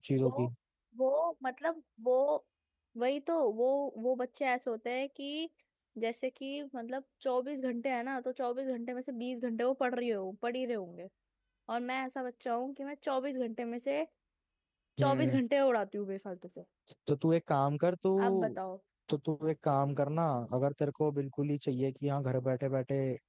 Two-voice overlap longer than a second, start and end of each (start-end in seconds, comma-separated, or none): none